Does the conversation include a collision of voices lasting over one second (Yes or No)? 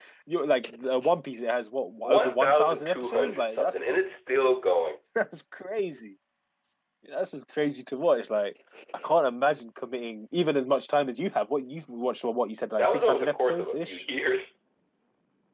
Yes